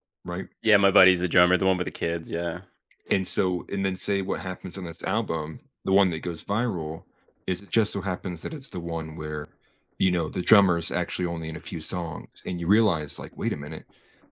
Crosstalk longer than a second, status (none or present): none